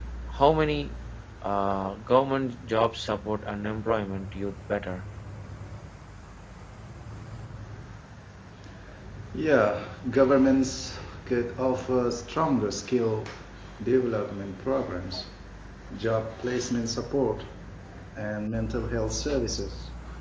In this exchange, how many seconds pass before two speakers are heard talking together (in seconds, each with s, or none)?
none